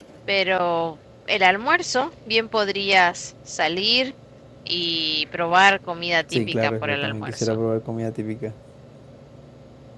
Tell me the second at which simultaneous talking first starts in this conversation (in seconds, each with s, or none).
6.3 s